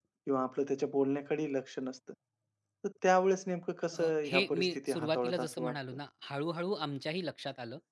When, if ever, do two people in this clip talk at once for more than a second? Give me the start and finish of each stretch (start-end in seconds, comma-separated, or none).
4.0-5.8